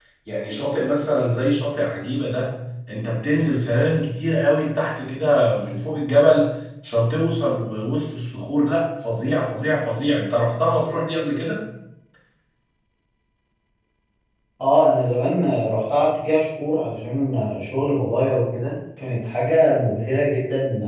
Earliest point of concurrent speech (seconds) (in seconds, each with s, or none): none